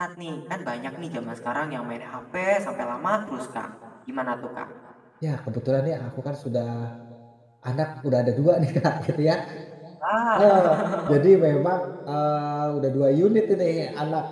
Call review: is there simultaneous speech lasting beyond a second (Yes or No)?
No